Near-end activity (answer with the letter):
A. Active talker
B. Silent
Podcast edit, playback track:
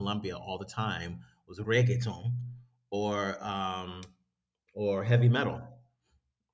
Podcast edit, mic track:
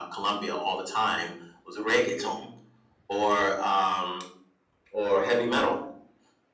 B